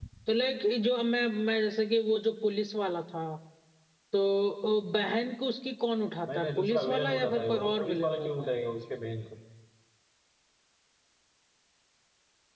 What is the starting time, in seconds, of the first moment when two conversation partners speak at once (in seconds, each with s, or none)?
6.3 s